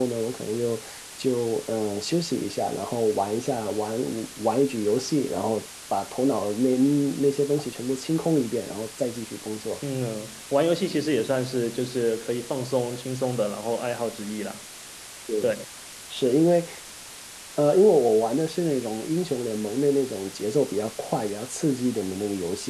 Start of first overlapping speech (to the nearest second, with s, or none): none